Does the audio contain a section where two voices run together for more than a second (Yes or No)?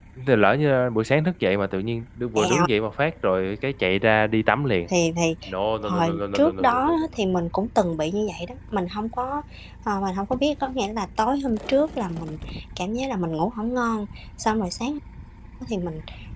Yes